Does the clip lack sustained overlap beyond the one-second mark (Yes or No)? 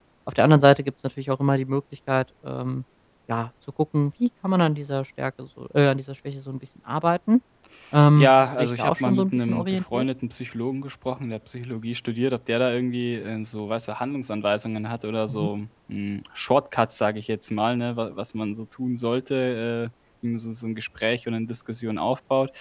No